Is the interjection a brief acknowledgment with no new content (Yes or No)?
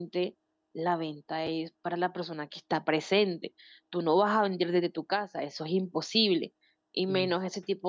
Yes